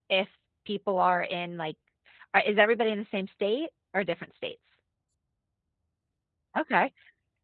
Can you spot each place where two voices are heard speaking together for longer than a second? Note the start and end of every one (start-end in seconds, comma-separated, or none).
none